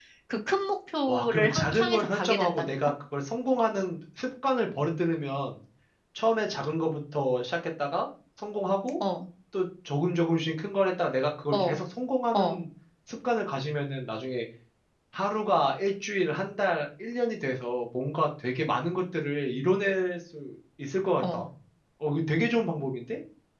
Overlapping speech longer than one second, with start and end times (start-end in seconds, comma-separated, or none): 1.1-2.7